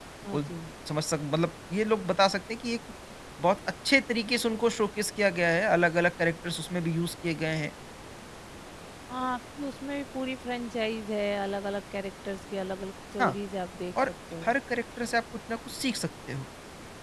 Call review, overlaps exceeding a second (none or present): none